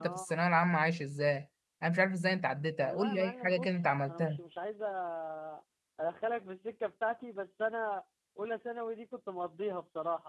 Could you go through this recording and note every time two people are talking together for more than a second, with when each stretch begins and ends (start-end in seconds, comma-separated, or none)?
2.8-4.4